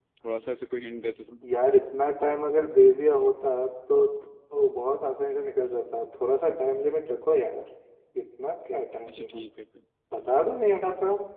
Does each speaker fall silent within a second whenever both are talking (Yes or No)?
Yes